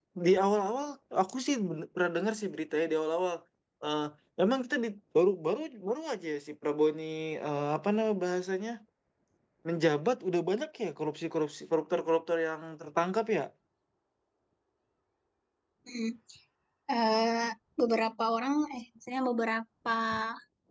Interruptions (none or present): none